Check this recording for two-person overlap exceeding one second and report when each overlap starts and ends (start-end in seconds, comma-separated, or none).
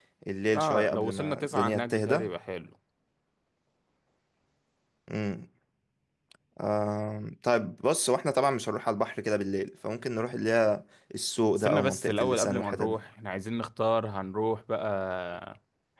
0.5-2.2, 11.6-13.0